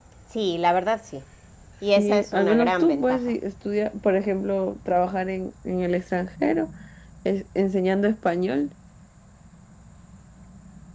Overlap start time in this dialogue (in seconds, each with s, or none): 2.0 s